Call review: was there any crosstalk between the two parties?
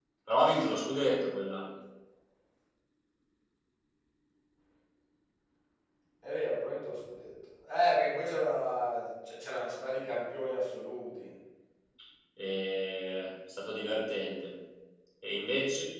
No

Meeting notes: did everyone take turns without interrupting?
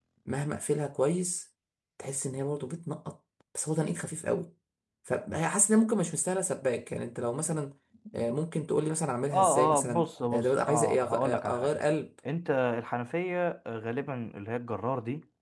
No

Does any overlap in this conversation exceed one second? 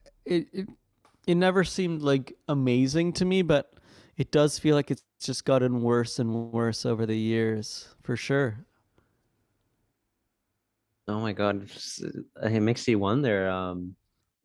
No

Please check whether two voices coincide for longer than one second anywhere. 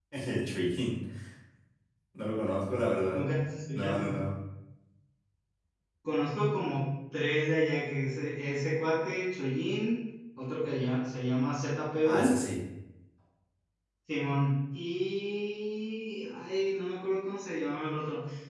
No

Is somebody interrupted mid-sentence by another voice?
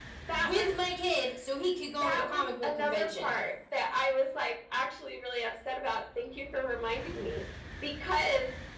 Yes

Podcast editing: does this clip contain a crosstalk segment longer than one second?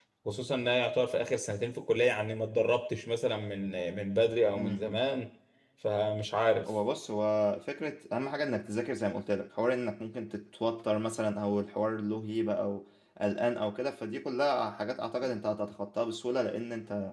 No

